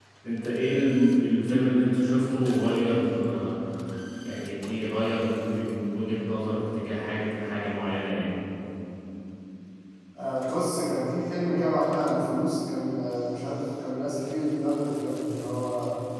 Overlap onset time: none

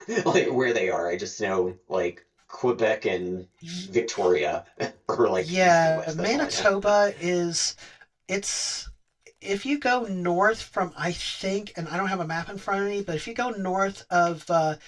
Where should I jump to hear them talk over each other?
5.4 s

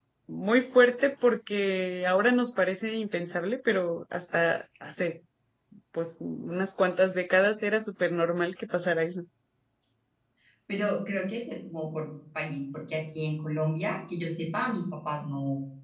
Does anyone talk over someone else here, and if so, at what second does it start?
none

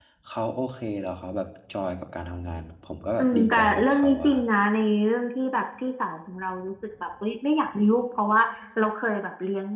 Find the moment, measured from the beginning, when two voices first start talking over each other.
3.2 s

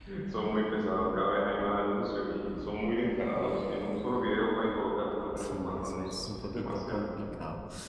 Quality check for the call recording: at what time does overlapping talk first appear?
5.4 s

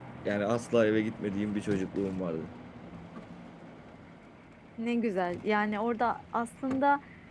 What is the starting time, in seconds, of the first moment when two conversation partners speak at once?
none

